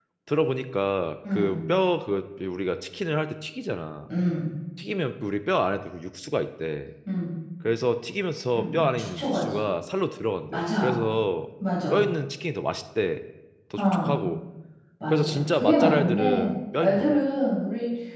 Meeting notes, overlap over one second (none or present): present